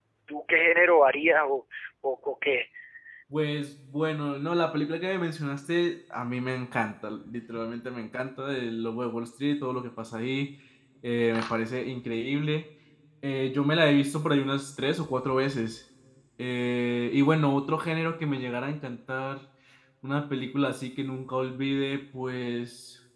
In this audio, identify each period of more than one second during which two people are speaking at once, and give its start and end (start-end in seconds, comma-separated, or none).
none